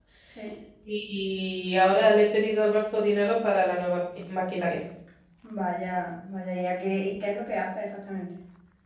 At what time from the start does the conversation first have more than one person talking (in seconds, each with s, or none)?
none